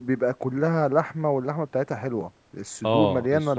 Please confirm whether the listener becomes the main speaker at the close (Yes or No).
Yes